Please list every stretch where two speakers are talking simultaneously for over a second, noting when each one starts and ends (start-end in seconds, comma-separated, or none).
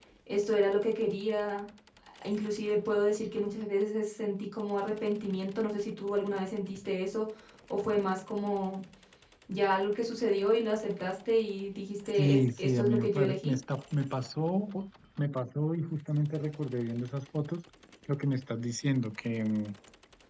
12.2-13.5